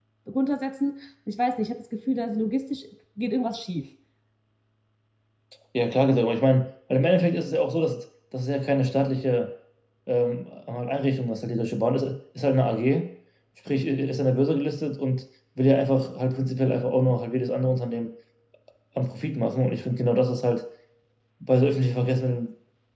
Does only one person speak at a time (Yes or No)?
Yes